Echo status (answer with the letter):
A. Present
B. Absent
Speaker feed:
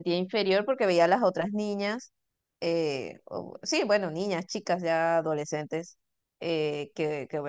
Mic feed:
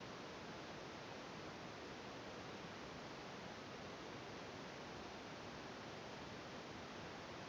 B